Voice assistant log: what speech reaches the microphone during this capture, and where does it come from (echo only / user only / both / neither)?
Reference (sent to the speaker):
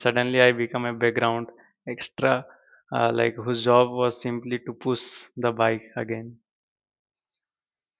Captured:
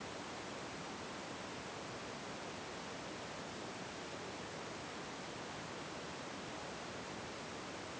neither